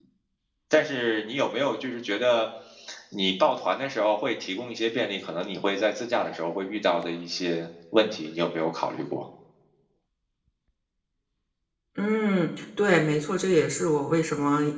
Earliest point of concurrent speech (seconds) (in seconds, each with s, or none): none